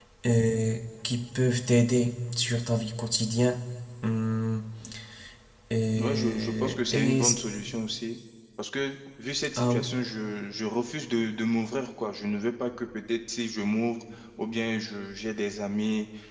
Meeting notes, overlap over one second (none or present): present